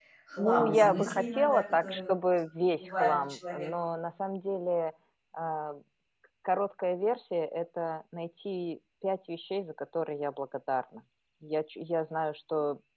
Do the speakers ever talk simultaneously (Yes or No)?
Yes